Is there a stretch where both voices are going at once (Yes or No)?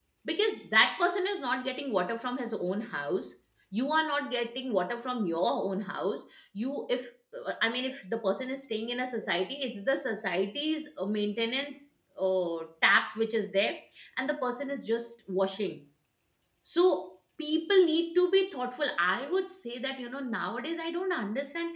No